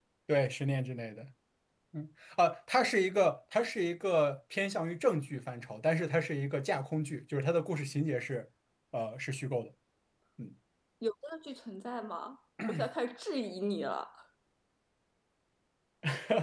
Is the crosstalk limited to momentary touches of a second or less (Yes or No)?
Yes